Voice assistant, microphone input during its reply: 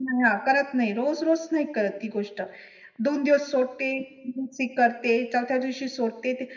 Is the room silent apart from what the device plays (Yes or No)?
Yes